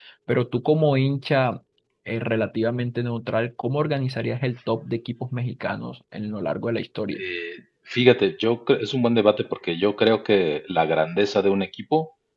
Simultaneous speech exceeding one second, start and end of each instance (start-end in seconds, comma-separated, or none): none